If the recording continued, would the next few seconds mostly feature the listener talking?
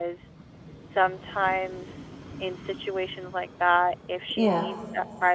No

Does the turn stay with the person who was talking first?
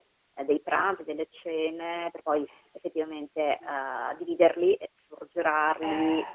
Yes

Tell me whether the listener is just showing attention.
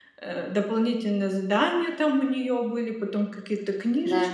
Yes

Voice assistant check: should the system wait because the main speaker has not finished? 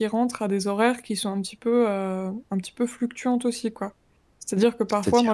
Yes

